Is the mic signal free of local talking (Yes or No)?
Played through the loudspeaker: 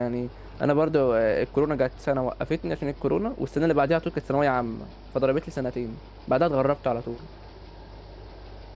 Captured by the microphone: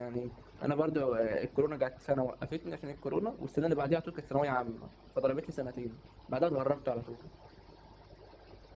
Yes